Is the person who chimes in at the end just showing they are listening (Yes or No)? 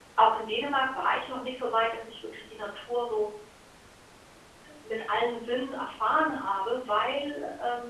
Yes